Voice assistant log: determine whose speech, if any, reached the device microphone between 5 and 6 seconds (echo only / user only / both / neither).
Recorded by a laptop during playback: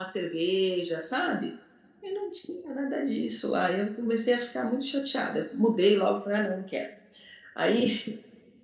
user only